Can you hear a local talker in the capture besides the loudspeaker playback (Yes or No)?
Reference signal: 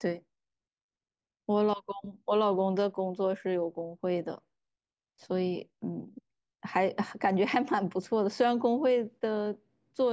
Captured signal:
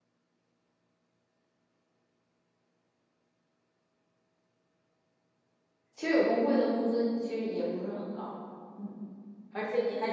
Yes